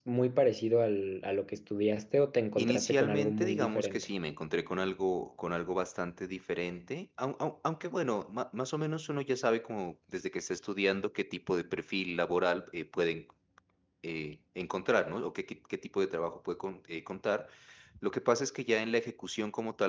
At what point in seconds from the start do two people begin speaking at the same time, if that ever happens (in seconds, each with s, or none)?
2.6 s